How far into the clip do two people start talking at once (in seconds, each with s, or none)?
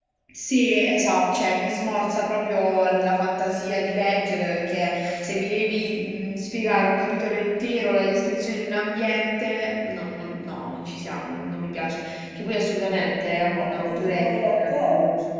13.6 s